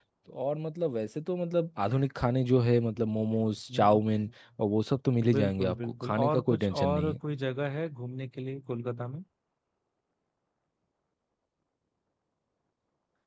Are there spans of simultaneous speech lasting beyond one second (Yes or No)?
Yes